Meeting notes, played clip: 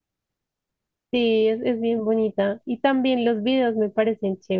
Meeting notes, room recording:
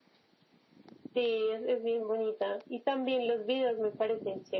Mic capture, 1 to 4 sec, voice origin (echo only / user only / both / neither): echo only